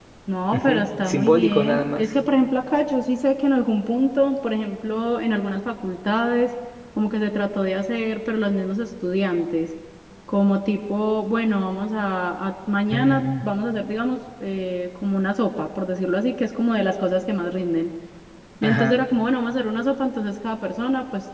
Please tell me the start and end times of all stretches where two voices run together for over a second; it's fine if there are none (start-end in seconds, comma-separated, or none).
0.5-2.1